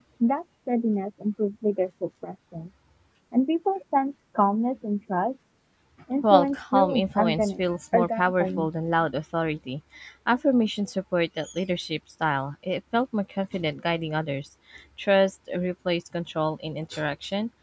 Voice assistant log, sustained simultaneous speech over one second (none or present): present